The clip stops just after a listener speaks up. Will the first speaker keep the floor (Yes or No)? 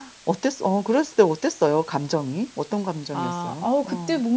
No